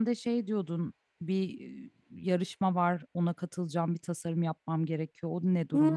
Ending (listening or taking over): taking over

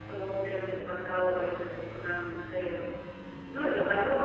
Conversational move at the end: listening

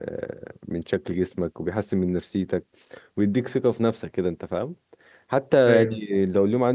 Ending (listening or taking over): listening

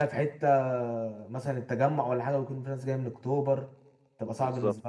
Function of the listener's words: taking over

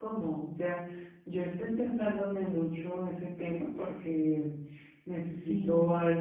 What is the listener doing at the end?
listening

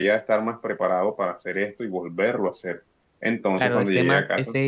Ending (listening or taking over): taking over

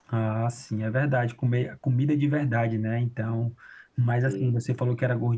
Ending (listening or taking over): listening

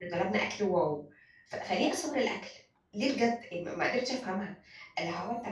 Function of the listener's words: listening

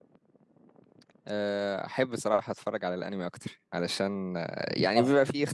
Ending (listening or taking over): listening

